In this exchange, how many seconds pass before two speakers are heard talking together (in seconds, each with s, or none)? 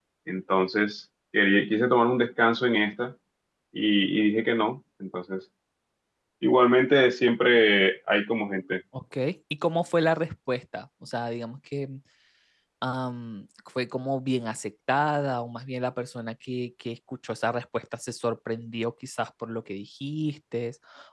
none